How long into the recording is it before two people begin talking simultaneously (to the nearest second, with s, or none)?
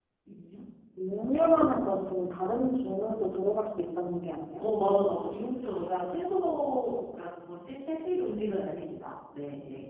none